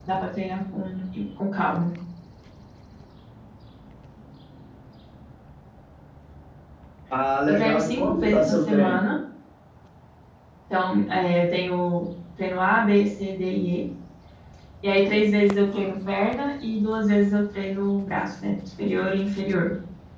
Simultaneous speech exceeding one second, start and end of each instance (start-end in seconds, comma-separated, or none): 7.5-9.0